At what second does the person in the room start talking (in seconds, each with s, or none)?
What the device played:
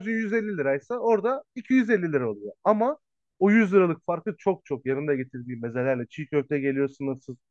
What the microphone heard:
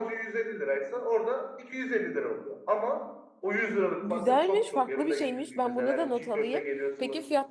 4.0 s